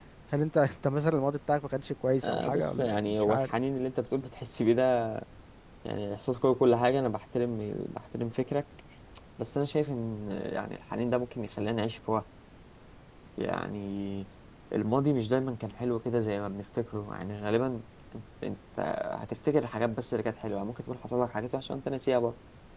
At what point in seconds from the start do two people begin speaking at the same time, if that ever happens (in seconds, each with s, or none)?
2.2 s